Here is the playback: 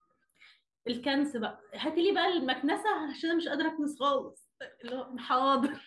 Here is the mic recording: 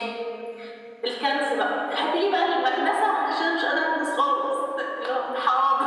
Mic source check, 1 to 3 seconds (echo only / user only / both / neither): echo only